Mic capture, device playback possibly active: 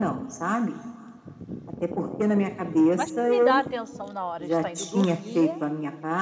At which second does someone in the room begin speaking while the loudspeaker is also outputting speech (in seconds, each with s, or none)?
2.9 s